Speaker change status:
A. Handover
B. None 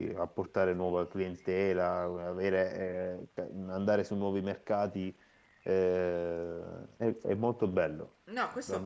A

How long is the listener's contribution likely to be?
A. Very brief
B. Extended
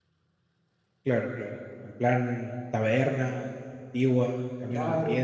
B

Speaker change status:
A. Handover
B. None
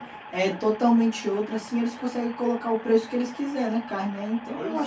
A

